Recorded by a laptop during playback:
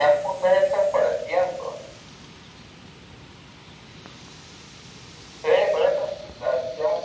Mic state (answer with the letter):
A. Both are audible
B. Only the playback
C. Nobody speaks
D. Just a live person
B